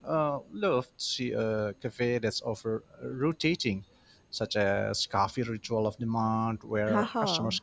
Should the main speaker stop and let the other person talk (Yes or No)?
No